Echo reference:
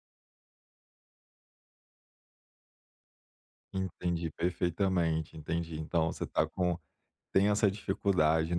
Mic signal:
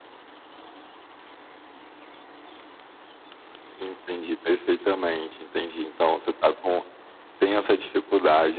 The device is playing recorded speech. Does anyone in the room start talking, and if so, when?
none

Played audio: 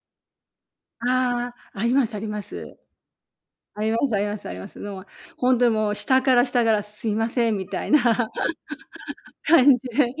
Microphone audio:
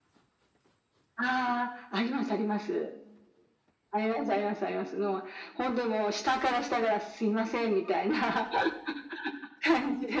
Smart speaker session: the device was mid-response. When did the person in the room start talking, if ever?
none

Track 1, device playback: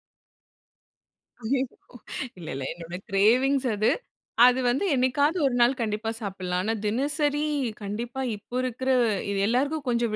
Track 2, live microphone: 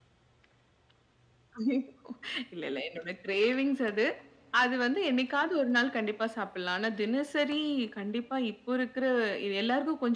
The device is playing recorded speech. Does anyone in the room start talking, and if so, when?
none

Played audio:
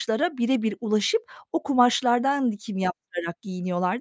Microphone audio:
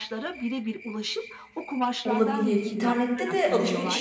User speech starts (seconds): 2.0 s

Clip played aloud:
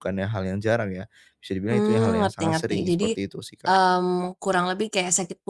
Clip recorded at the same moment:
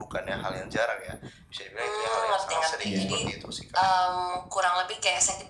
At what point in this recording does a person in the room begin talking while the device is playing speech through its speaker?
2.8 s

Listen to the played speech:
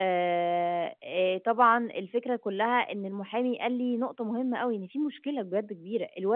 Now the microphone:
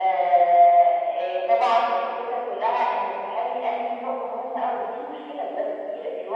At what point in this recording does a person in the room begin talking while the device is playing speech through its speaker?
none

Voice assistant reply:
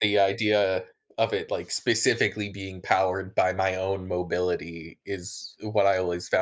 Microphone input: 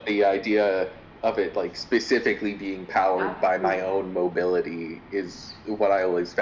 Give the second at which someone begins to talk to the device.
3.1 s

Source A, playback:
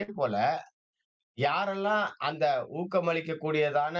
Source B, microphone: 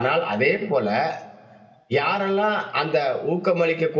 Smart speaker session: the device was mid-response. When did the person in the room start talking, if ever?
none

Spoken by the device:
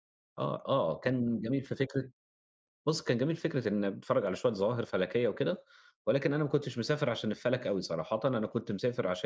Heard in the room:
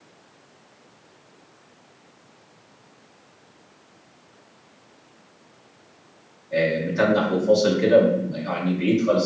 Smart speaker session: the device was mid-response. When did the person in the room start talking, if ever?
6.5 s

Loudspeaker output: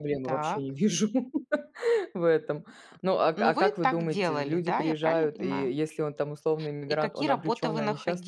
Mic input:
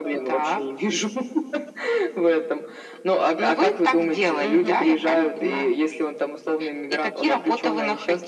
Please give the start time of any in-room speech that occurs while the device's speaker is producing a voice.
4.4 s

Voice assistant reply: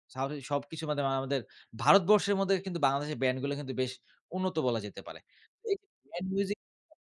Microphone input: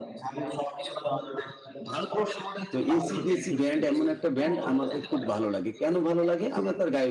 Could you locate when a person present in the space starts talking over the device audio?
2.7 s

